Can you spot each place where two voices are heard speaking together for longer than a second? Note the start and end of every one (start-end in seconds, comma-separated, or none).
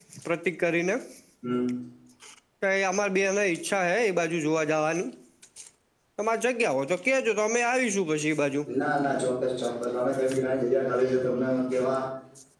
none